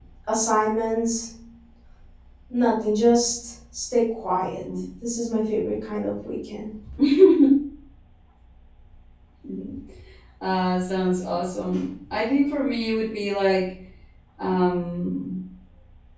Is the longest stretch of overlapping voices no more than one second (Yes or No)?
Yes